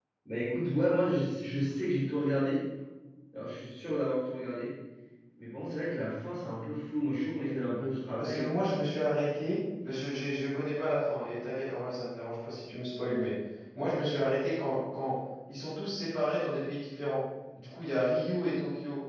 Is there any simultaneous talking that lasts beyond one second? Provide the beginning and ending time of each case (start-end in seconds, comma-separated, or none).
none